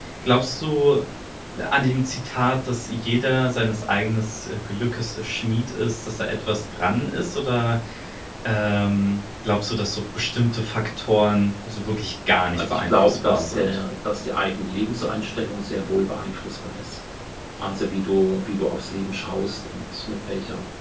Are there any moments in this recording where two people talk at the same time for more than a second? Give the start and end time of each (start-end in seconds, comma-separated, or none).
12.5-13.8